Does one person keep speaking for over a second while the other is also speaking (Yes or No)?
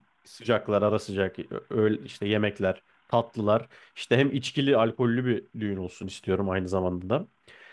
No